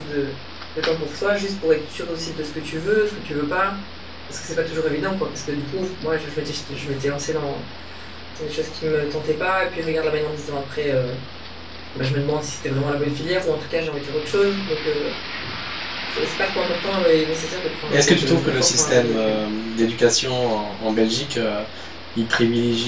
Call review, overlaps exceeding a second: present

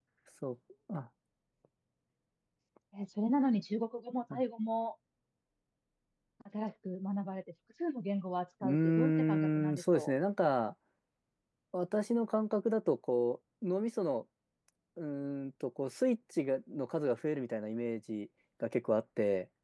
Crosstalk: present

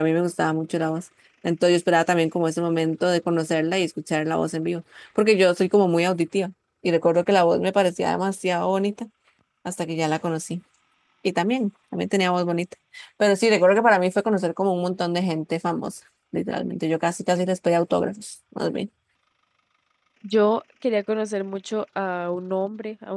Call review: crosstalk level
none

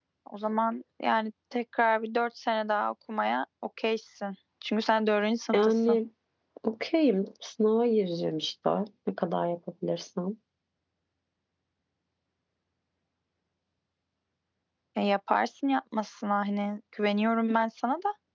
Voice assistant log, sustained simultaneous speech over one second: none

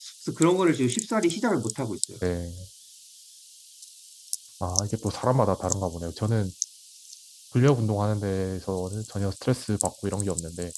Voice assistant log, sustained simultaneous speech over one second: none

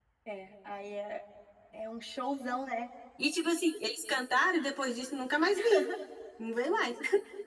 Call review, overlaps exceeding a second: none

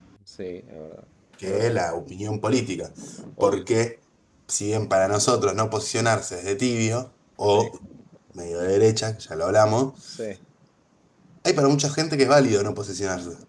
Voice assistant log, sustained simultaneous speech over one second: none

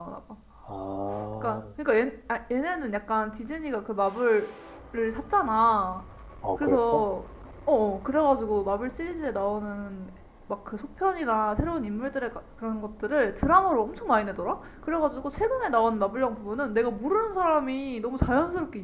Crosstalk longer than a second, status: none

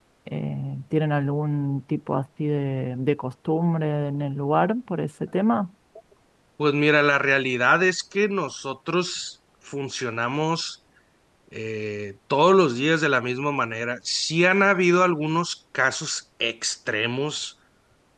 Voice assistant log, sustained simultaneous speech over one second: none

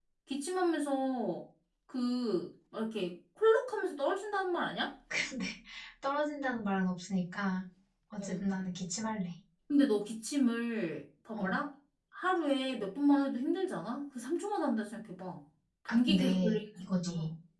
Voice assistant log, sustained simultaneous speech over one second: present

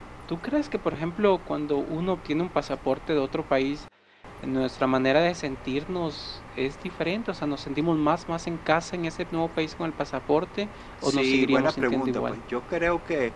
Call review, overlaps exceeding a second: present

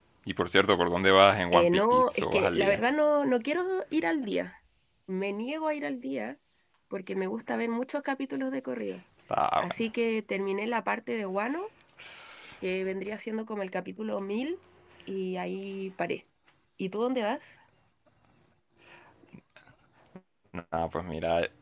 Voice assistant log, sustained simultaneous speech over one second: present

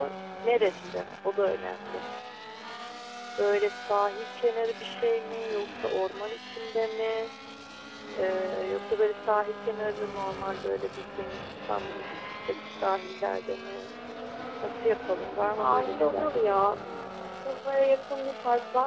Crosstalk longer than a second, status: present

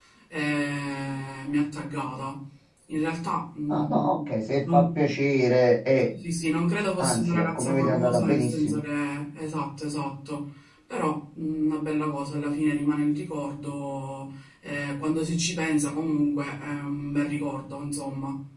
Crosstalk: present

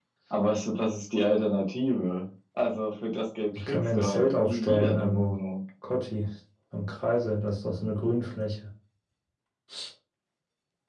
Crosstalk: present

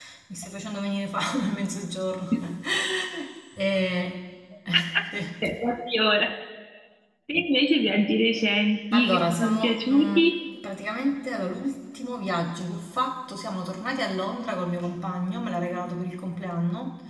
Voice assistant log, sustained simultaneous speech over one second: present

